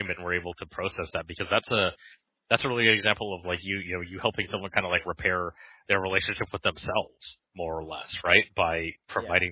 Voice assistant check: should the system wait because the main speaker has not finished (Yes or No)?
Yes